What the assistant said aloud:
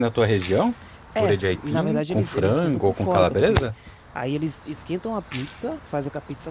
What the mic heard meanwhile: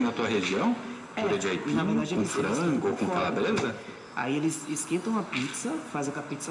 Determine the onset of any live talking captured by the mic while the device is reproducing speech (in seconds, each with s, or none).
none